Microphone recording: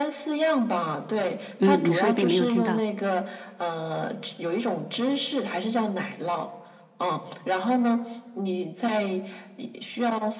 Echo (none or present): present